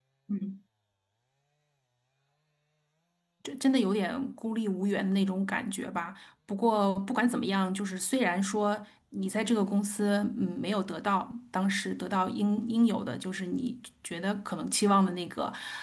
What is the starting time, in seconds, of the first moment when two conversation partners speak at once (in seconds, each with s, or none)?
none